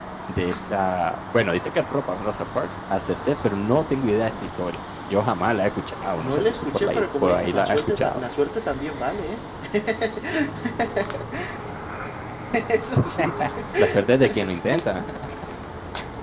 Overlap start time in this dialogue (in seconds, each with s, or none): 6.2 s